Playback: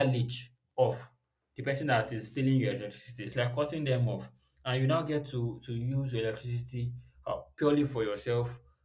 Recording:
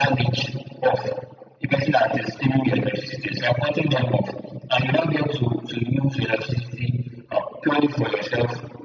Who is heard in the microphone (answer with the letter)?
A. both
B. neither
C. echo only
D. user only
C